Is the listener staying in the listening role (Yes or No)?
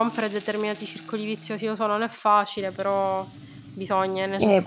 No